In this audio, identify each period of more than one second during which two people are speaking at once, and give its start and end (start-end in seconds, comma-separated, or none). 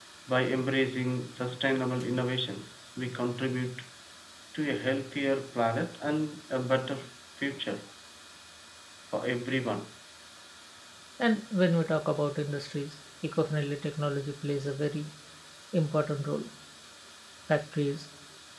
none